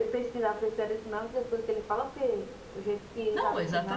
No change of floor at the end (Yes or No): No